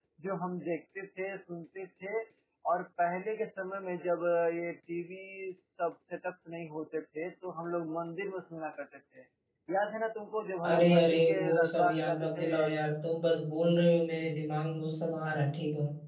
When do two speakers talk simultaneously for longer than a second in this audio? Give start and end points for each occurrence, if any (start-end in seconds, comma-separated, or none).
10.6-12.5